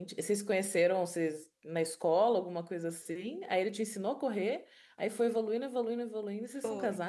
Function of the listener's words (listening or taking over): taking over